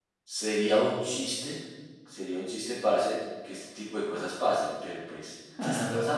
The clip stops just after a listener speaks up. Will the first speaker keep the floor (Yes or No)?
Yes